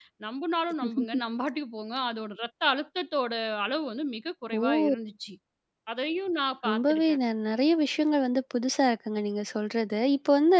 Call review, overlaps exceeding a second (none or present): none